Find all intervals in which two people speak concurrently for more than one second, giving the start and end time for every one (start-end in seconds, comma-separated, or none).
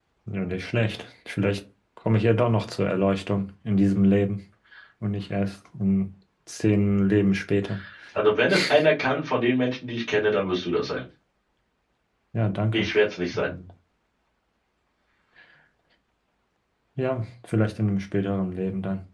none